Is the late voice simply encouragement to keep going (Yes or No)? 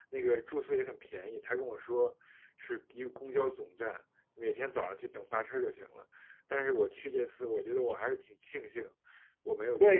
No